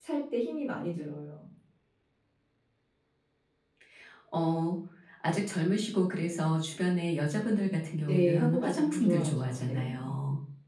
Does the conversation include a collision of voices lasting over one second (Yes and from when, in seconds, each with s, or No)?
Yes, from 8.0 s